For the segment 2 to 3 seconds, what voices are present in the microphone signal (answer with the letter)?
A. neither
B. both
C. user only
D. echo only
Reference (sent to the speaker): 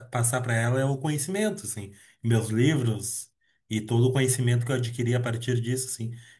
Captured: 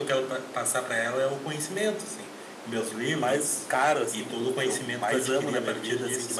D